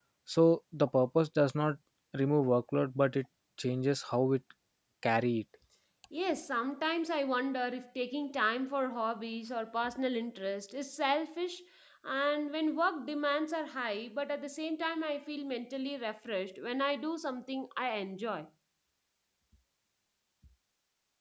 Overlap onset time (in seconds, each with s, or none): none